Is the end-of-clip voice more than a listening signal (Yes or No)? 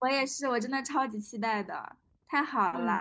No